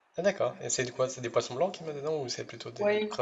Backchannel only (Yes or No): No